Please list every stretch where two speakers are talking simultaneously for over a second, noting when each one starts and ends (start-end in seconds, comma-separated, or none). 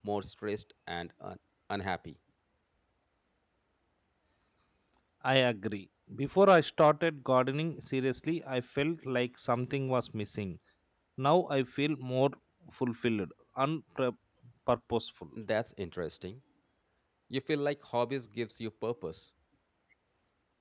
none